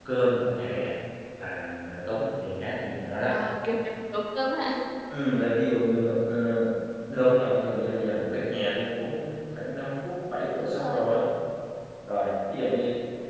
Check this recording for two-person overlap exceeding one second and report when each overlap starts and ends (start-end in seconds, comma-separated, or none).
none